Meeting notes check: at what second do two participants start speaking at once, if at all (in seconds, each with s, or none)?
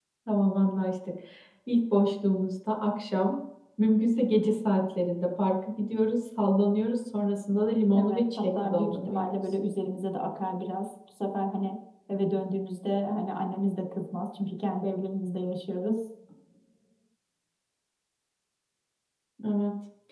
7.9 s